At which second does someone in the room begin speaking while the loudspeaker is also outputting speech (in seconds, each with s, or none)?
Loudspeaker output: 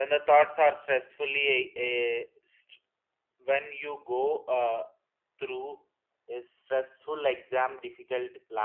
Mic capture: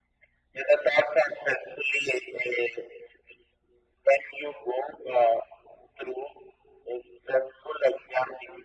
none